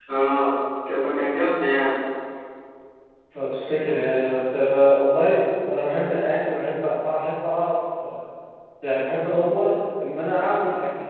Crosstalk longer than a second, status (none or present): none